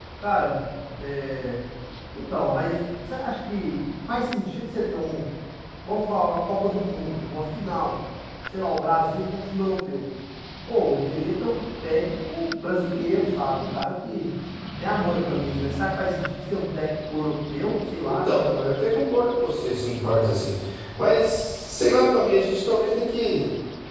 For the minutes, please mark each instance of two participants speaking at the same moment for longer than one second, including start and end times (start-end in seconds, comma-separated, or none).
none